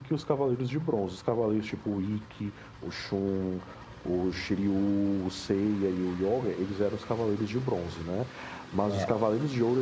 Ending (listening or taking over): listening